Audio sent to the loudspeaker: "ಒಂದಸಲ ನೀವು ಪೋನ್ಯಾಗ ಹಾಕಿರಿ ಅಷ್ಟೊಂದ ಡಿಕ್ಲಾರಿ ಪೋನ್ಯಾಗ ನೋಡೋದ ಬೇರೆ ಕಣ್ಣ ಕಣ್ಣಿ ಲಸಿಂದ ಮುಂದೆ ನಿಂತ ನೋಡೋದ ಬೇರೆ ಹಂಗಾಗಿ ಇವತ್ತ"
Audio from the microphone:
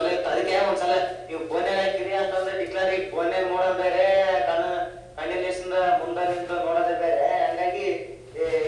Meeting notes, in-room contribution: none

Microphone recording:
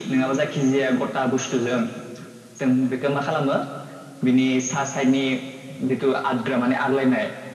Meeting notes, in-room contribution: none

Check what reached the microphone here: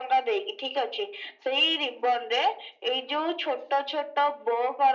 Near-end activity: none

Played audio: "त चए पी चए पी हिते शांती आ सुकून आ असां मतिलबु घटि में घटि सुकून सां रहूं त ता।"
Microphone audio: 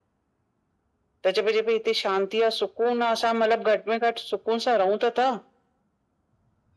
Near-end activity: none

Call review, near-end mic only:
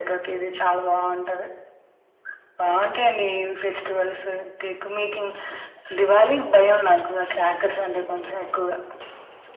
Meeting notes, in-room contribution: none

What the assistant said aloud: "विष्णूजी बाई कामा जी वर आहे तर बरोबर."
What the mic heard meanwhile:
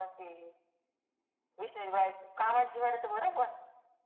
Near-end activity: none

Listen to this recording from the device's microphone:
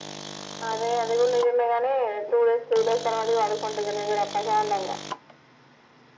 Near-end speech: none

